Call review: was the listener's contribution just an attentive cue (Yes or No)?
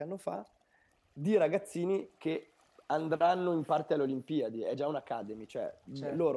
Yes